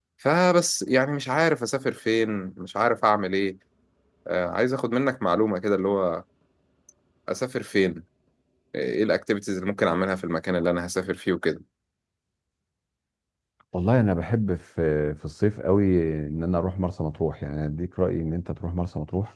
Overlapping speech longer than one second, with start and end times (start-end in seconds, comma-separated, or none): none